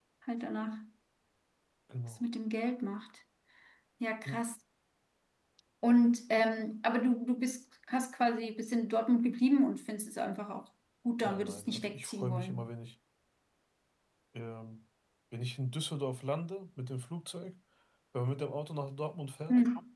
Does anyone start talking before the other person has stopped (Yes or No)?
Yes